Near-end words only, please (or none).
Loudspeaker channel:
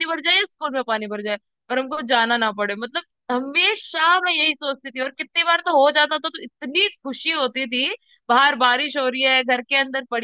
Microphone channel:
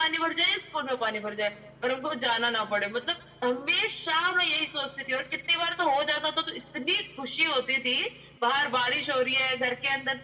none